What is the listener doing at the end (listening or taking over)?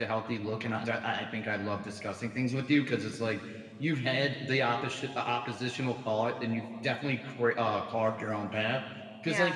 listening